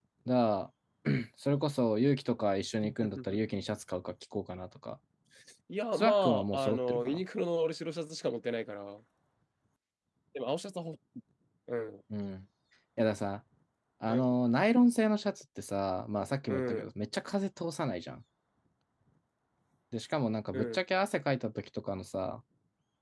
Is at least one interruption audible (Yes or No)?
Yes